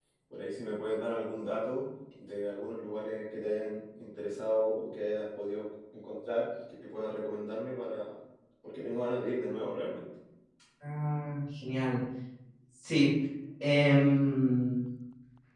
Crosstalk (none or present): none